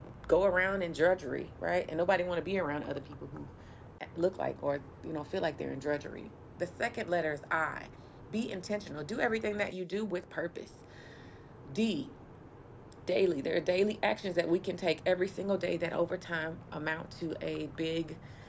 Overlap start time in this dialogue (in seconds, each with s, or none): none